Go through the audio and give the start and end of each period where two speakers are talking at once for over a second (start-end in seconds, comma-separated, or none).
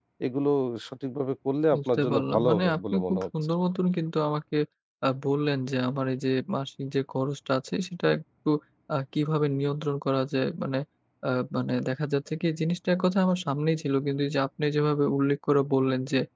1.8-3.5